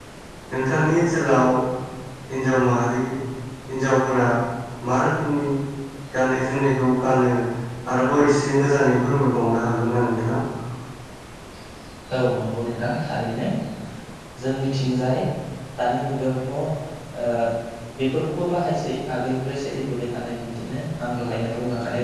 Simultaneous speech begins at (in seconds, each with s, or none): none